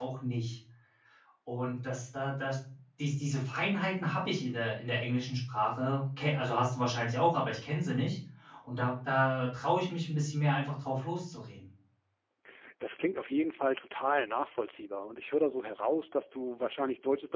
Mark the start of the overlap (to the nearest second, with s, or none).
none